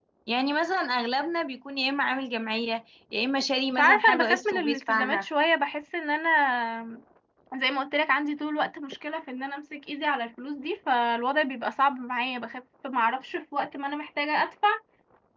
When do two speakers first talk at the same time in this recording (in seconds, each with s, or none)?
3.7 s